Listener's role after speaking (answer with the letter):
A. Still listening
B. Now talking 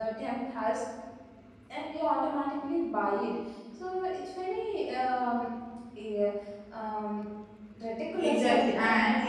B